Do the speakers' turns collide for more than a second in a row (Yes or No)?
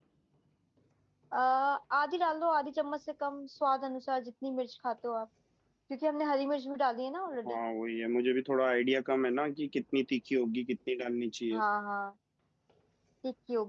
No